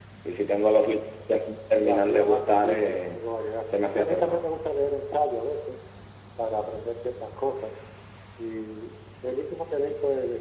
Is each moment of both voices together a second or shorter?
No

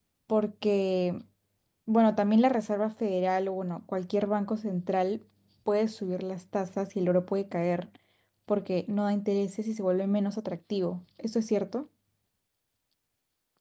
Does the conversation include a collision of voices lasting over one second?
No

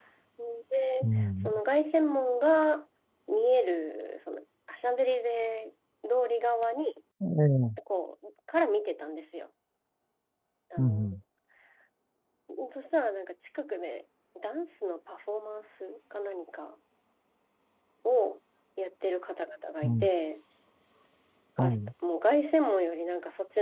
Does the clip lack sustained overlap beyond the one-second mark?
Yes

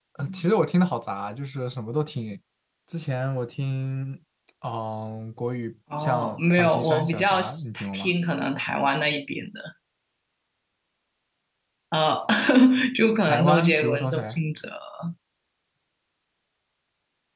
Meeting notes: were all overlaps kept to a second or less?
No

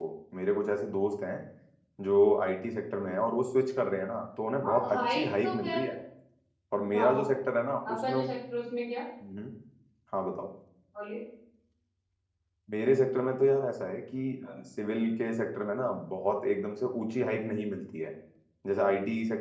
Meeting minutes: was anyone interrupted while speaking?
Yes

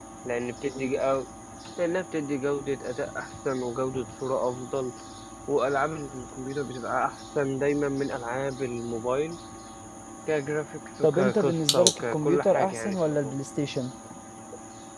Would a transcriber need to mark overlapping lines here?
Yes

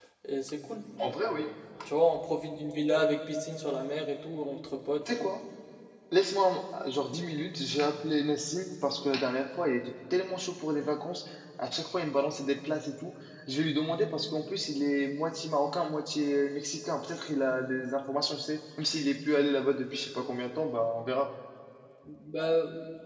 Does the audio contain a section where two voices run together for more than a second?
No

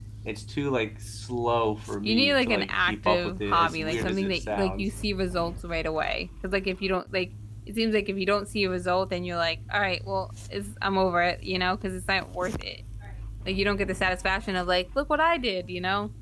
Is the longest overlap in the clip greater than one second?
Yes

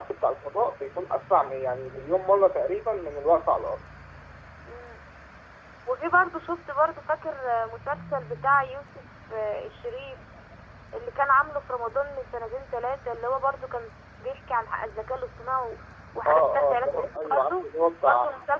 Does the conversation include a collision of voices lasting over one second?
Yes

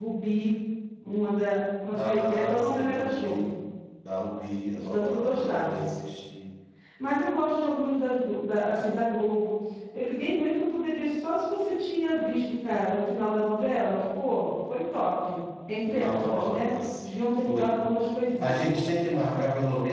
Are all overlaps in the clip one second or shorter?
No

